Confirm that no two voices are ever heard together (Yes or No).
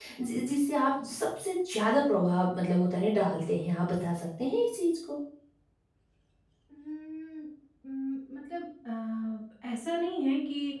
Yes